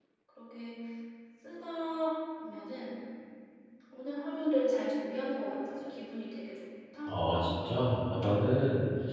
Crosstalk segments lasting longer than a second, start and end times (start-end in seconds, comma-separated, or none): none